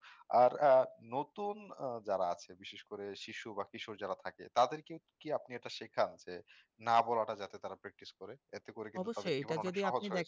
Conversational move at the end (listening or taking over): taking over